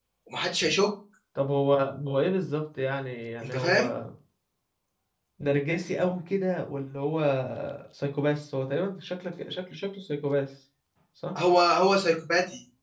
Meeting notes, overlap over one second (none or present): none